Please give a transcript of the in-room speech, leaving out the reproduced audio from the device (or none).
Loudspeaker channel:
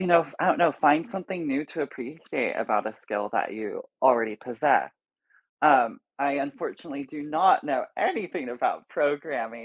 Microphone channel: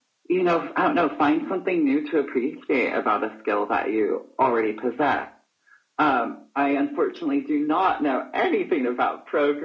none